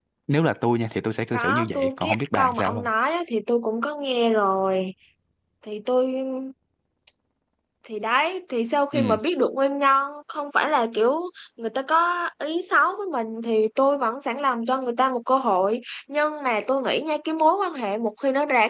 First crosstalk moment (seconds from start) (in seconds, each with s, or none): 1.3 s